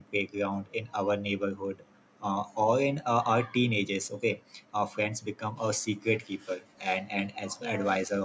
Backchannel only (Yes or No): Yes